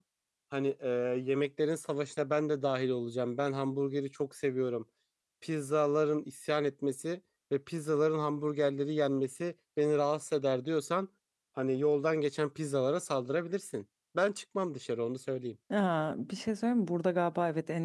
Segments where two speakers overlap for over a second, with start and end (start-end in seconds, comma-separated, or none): none